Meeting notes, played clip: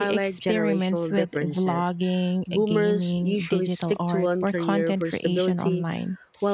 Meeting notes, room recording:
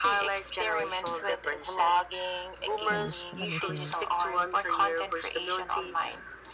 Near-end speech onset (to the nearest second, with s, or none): 3 s